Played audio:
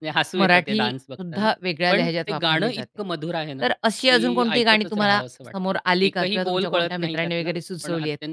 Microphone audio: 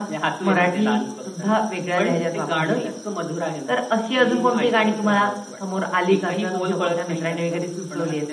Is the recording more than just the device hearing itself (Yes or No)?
No